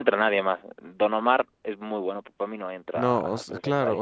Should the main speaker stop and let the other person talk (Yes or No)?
Yes